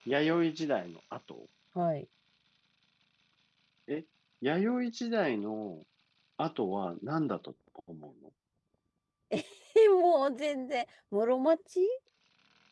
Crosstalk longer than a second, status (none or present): none